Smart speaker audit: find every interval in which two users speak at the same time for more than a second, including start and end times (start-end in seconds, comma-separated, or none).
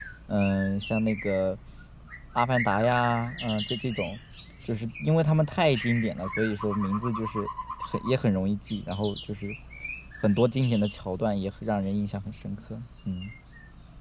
none